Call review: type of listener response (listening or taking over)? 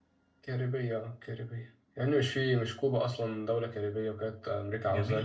taking over